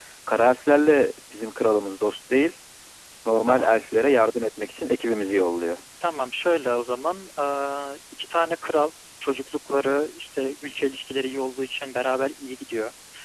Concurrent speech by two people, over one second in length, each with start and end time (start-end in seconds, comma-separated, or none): none